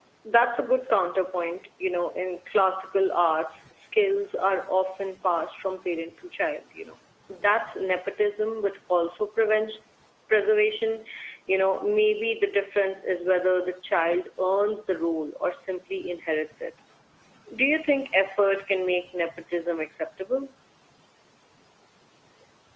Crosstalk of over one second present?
No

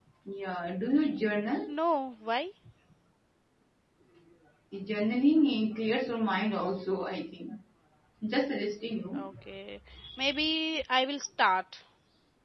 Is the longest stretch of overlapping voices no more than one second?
Yes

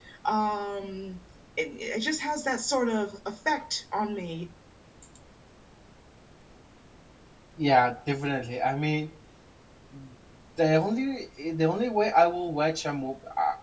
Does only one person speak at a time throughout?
Yes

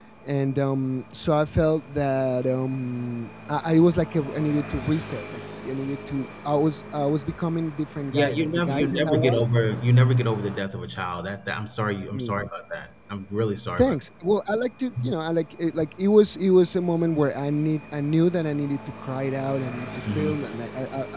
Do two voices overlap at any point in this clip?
Yes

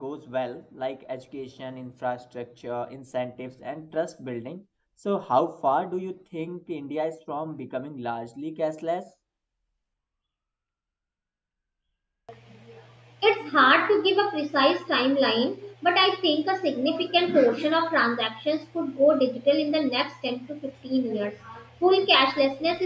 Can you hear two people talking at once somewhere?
No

